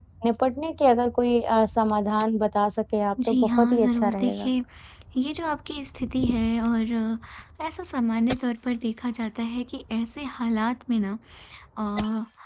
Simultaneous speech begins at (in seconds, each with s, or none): 3.2 s